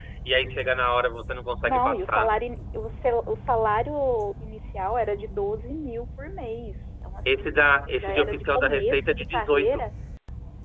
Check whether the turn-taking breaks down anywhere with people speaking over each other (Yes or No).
Yes